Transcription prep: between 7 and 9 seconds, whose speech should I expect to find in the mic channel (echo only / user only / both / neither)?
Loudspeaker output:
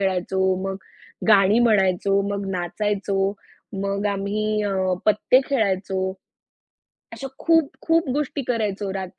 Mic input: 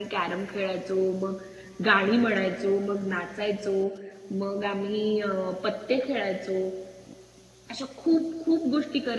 echo only